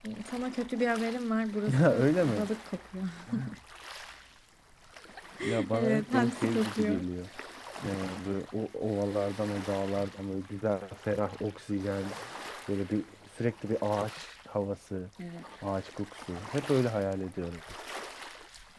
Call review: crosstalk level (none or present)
present